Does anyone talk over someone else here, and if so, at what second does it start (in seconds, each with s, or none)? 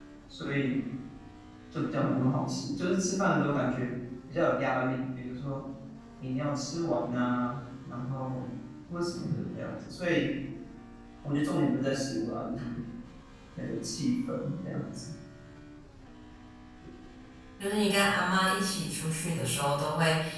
none